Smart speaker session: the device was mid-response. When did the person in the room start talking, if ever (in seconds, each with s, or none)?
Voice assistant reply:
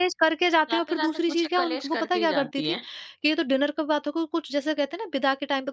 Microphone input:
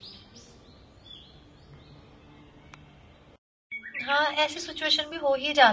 4.0 s